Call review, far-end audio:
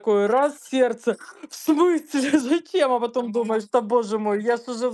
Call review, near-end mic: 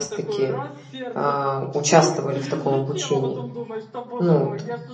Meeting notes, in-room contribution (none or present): present